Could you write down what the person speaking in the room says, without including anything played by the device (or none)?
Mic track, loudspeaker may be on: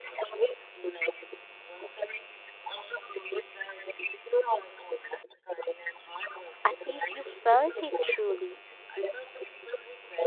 At least you felt it truly.